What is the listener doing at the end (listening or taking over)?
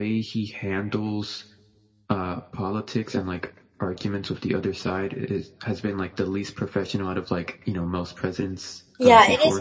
taking over